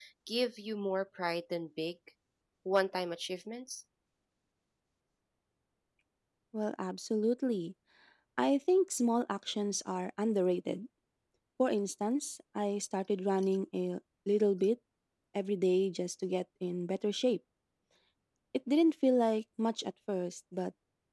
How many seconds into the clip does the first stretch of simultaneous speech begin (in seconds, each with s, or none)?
none